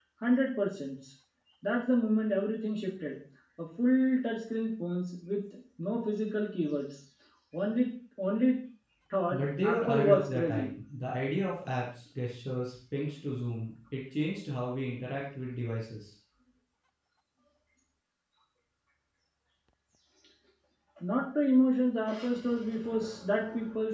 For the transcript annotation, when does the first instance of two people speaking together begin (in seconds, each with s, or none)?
9.3 s